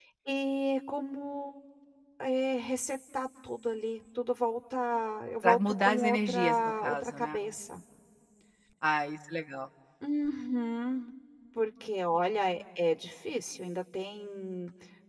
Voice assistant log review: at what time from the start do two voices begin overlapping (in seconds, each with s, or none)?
5.4 s